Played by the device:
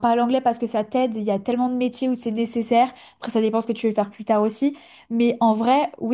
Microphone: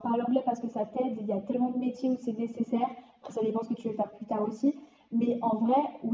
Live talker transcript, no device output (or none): none